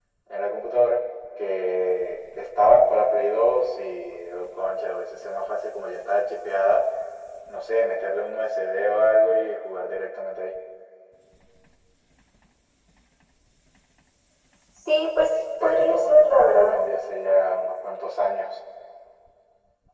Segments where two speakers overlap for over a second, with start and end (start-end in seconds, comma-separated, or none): 15.6-16.8